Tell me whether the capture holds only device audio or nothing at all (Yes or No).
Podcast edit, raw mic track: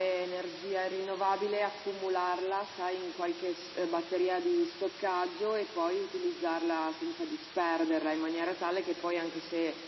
Yes